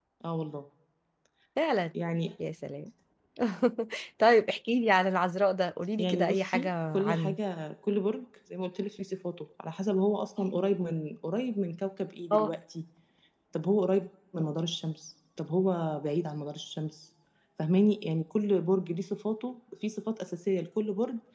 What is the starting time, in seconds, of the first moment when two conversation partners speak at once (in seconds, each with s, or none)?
6.0 s